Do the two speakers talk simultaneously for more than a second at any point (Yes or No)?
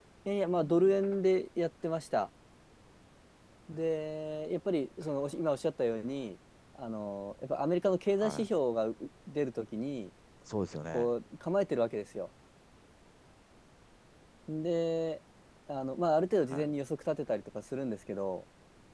No